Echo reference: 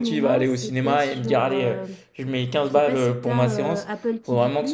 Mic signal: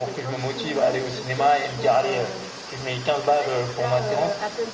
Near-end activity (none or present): none